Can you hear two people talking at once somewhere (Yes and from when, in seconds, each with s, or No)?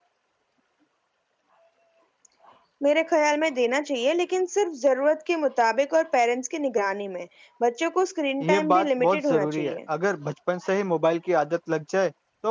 Yes, from 8.4 s